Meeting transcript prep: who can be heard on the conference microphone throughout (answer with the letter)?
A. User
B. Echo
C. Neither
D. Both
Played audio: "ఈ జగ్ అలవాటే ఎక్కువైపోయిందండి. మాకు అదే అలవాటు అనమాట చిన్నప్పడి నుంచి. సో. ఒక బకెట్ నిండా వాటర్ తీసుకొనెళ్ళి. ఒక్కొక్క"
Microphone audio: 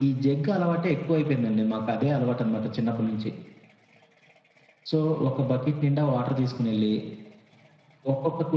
B